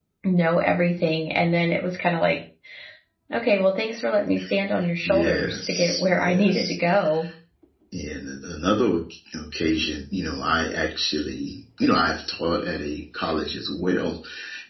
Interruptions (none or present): present